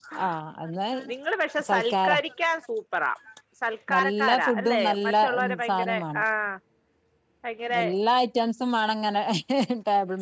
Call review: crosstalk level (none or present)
present